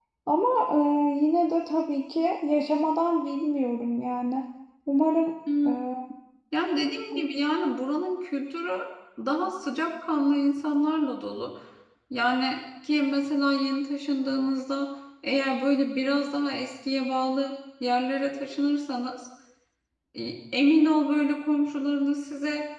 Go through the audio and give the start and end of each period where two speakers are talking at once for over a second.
none

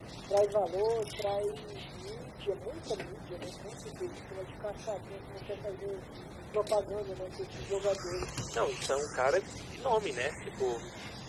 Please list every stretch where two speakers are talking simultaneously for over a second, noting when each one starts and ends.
none

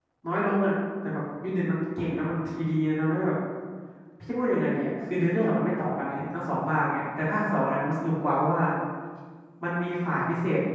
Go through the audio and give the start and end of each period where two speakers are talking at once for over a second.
none

